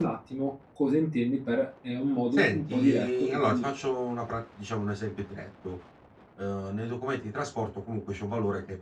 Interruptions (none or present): present